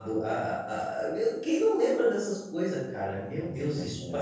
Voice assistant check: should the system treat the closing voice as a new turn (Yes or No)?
No